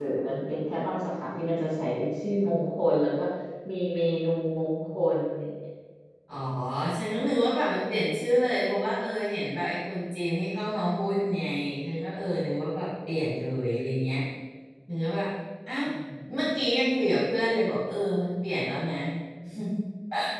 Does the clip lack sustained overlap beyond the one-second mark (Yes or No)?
Yes